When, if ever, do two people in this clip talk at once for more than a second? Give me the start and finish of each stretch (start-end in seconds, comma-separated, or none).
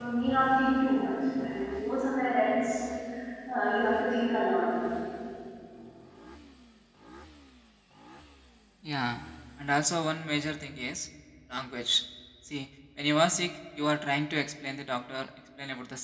none